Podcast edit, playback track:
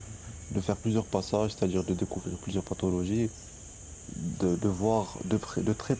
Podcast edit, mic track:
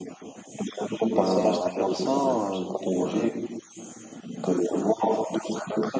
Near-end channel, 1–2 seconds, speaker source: both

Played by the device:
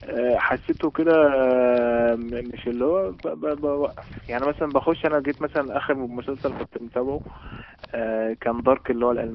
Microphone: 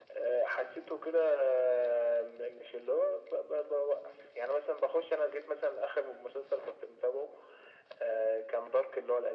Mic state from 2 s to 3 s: echo only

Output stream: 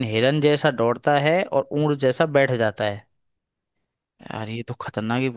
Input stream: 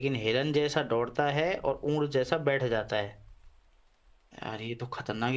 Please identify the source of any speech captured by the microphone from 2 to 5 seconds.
echo only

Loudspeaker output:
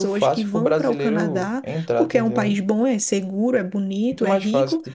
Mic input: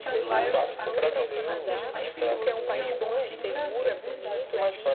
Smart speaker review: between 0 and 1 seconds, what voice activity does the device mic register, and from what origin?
both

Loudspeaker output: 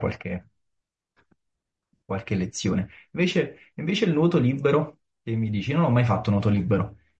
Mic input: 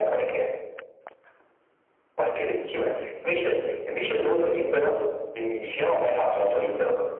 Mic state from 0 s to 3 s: echo only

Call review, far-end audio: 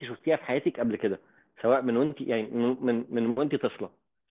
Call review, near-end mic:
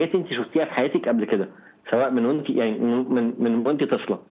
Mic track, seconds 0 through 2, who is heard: echo only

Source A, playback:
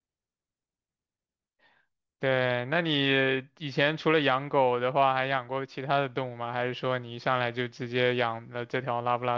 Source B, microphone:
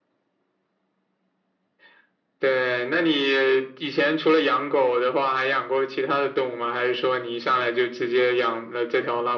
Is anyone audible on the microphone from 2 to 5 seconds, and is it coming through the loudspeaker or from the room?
echo only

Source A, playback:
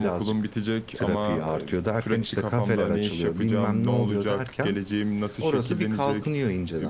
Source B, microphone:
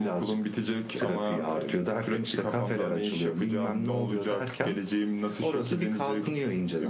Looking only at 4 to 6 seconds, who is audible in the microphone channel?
echo only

